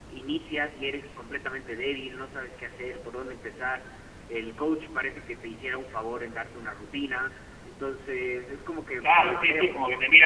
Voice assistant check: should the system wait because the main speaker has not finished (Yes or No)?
No